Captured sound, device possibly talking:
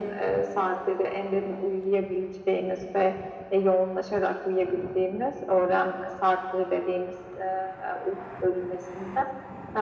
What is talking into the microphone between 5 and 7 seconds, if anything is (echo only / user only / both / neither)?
echo only